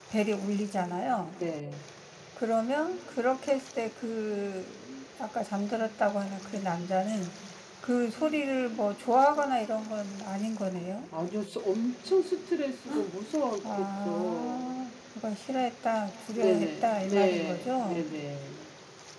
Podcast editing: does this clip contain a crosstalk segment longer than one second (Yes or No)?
Yes